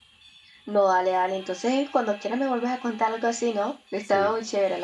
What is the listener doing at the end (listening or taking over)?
taking over